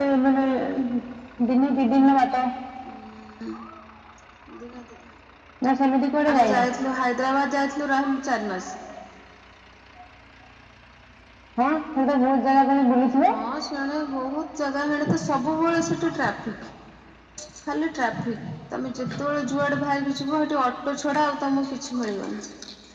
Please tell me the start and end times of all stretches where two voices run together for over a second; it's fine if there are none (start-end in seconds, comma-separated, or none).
none